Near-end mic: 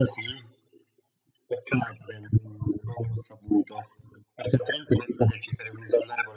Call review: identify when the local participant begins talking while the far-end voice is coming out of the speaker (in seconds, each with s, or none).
none